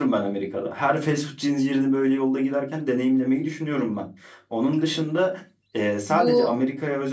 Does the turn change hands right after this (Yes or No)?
No